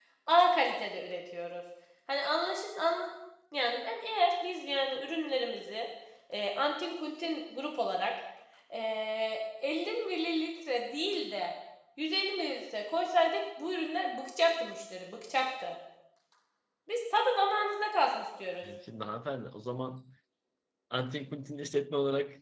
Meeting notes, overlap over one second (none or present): none